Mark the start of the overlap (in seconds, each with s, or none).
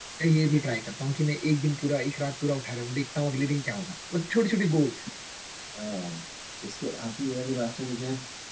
none